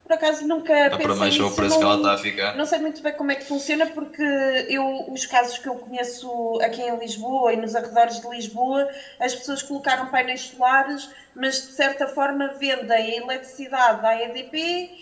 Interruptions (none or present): present